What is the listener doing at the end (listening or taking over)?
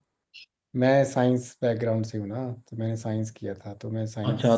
taking over